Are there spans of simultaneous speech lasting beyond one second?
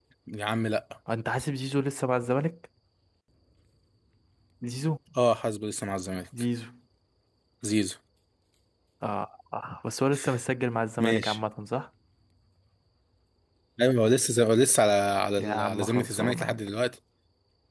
Yes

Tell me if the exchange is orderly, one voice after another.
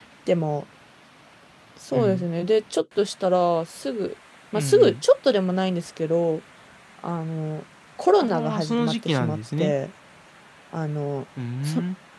No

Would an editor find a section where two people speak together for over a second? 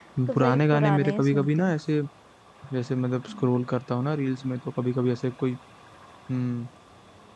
Yes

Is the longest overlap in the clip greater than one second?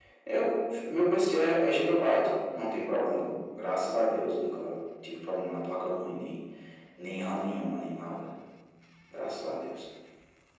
No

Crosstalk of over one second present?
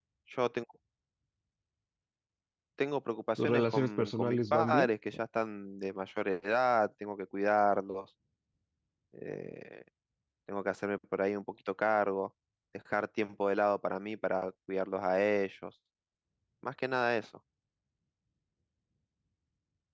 Yes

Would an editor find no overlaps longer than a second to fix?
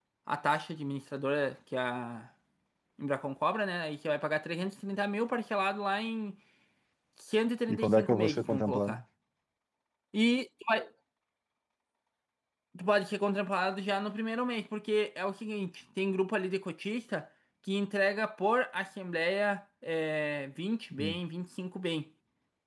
No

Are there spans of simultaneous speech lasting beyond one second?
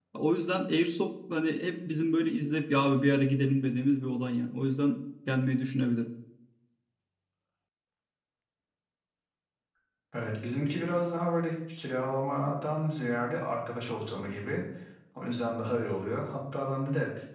No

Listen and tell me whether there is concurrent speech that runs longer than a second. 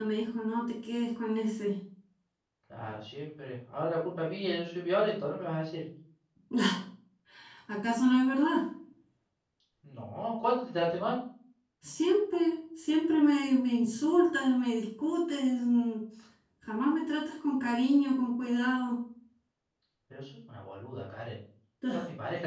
No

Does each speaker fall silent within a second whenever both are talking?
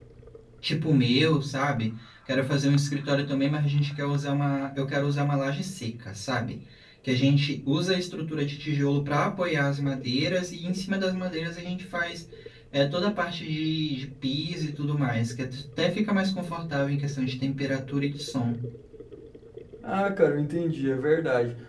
Yes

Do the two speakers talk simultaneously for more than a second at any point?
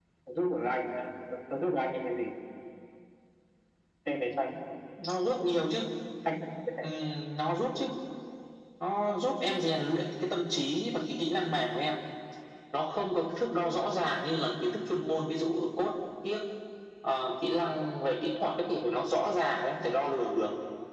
No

